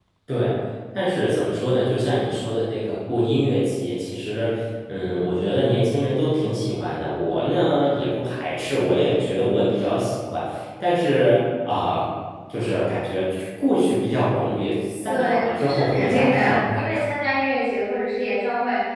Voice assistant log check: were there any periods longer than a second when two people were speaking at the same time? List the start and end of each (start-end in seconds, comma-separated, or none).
15.1-17.0